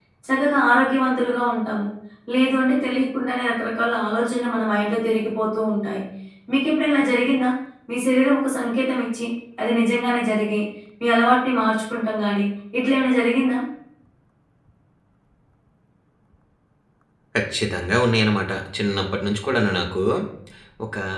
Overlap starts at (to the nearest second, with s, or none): none